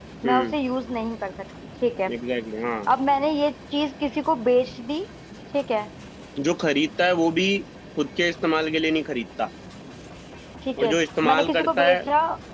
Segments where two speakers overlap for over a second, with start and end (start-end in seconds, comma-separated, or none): 10.8-12.0